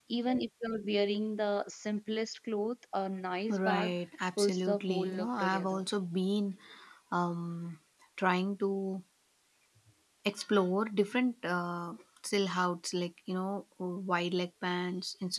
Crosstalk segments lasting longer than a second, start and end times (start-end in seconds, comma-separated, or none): 4.4-5.8